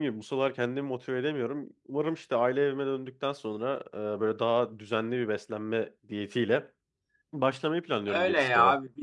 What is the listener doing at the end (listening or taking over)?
taking over